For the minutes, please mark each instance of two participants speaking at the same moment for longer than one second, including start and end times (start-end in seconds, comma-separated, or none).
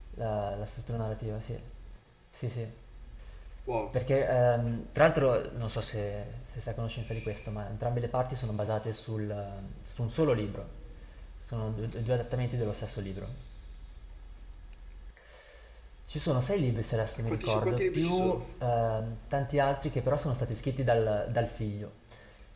17.2-18.4